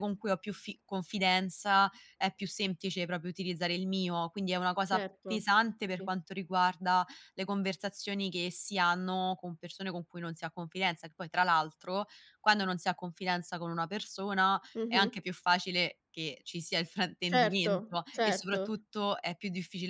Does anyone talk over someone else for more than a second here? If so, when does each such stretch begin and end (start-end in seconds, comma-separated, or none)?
17.3-18.7